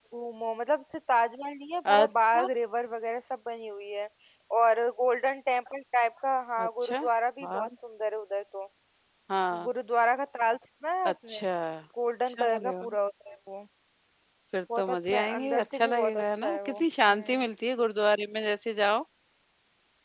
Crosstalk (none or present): present